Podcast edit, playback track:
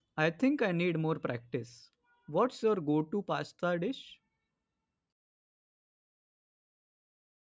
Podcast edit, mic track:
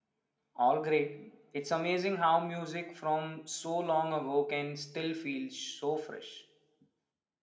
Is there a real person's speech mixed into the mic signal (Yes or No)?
Yes